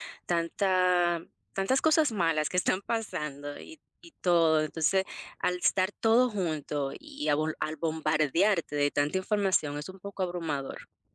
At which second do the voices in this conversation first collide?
none

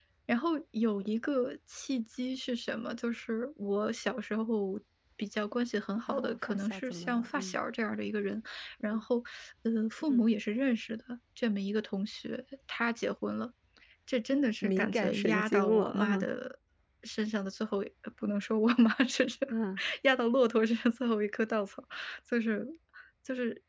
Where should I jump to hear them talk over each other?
6 s

